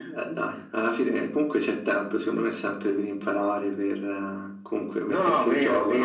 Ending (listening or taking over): taking over